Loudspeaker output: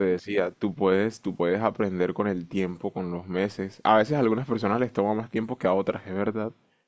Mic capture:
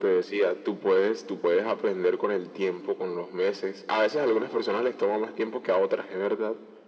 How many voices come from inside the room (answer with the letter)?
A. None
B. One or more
A